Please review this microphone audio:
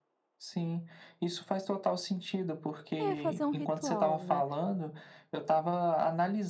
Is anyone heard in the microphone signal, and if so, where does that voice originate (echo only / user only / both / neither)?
both